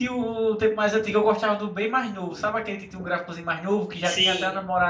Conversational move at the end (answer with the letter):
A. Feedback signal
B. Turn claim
A